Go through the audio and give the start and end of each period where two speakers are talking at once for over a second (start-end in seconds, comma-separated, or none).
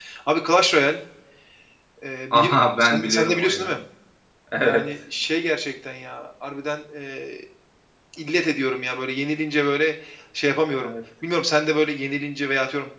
2.3-3.7